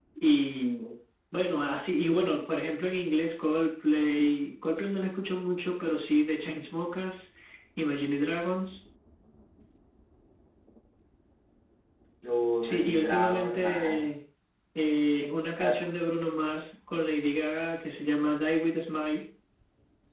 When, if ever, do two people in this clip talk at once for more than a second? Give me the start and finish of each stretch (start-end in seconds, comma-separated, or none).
12.6-14.1